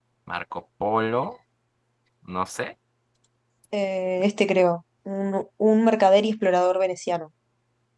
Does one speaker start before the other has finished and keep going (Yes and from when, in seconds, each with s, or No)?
No